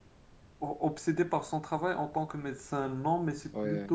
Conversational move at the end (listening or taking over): listening